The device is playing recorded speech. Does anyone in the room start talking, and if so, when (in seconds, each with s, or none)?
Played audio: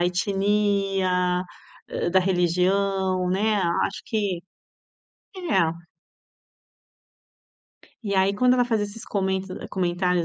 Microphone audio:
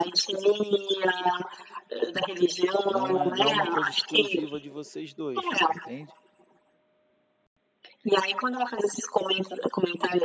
2.8 s